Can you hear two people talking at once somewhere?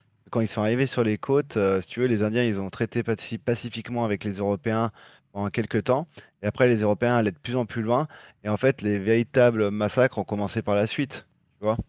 No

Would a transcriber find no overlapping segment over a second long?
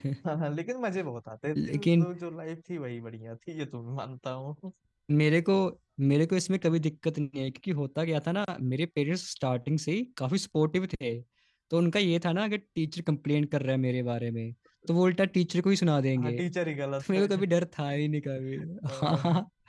Yes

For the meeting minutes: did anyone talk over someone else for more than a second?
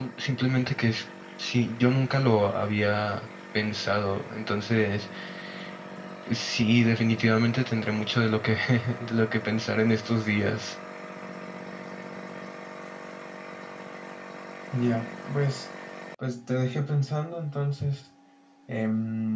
No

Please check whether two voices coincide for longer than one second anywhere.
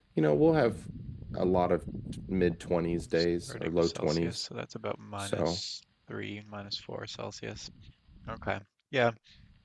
Yes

